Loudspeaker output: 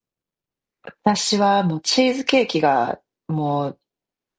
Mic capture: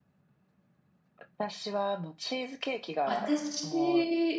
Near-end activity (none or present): present